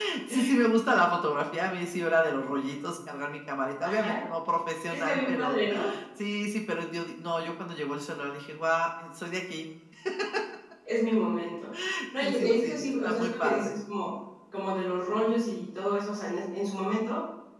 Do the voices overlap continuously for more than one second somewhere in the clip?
Yes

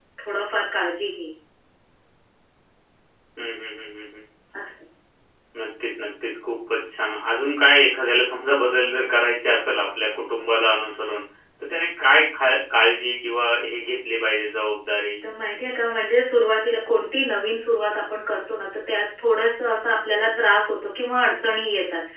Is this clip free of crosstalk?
Yes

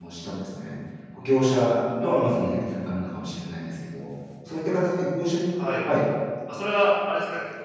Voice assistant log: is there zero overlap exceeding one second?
Yes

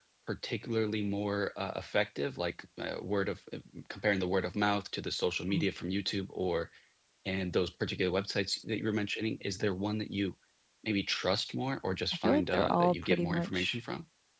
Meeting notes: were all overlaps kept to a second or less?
No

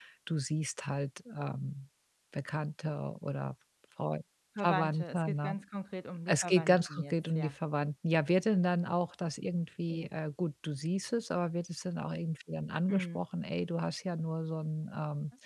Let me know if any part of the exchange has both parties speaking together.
Yes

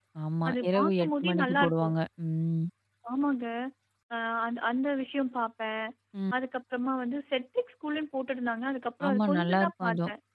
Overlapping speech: Yes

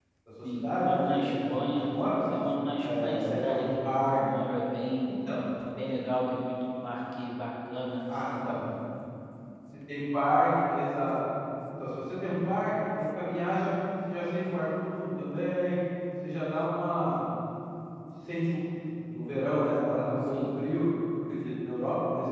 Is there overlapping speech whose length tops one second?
Yes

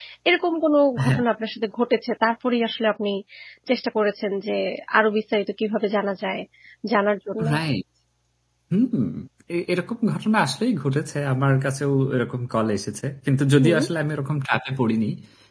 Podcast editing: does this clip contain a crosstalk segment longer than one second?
No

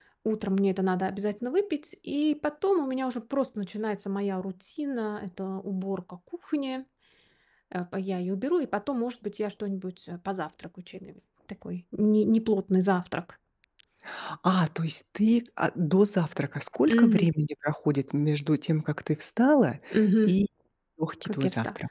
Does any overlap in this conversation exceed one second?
No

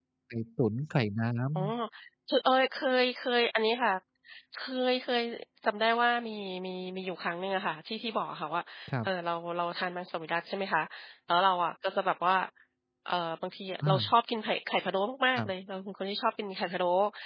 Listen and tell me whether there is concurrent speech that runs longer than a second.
No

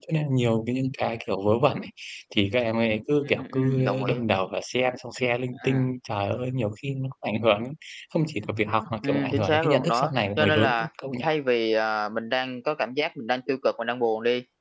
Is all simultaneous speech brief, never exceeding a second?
No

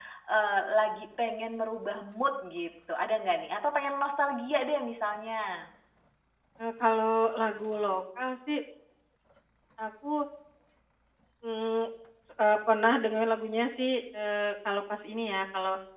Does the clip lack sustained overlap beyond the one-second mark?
Yes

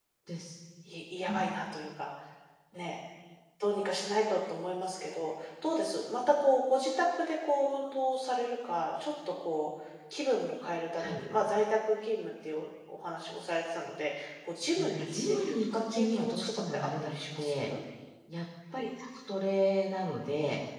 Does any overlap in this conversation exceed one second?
Yes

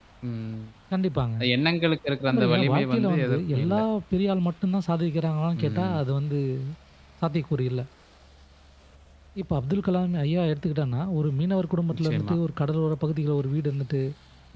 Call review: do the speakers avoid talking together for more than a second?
No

